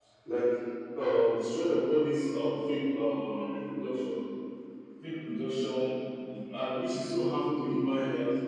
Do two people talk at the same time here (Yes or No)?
No